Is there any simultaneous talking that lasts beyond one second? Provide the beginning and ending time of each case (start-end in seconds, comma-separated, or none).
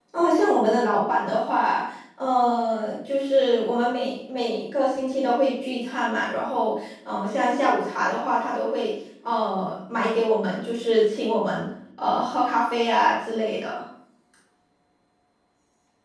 none